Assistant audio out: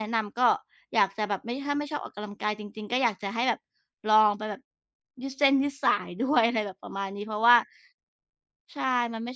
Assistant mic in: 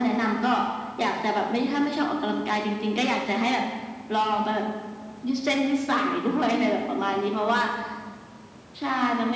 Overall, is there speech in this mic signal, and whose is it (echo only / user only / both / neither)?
echo only